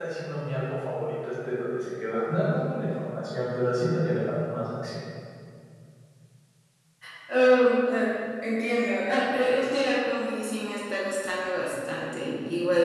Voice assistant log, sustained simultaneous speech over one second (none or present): none